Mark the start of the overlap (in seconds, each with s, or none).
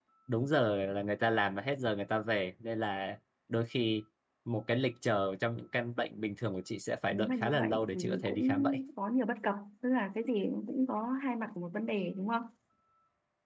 7.1 s